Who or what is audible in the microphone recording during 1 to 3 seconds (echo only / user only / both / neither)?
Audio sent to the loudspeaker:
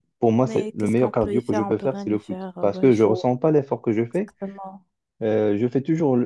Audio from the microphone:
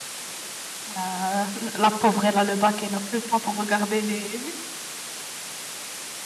user only